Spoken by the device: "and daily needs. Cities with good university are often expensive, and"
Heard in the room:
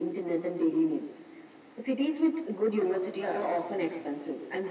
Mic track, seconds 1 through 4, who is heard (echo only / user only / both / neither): both